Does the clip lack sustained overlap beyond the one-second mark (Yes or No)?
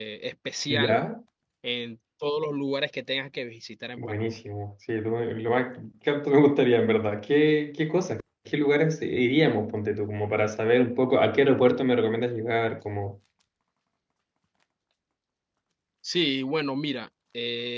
Yes